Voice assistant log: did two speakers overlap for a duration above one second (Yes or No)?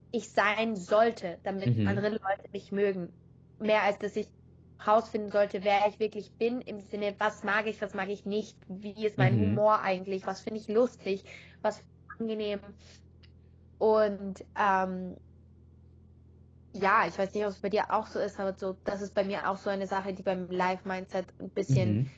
No